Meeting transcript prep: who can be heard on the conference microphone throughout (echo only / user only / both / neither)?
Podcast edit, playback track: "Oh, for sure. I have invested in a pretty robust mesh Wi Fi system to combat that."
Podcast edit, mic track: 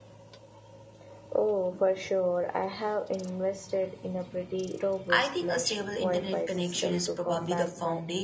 both